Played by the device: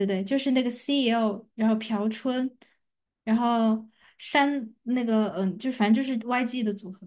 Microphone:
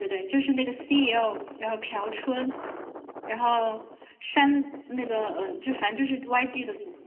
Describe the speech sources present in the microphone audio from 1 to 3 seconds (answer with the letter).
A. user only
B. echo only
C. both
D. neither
B